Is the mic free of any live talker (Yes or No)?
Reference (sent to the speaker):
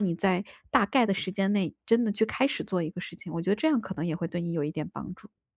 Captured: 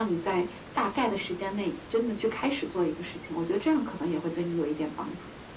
Yes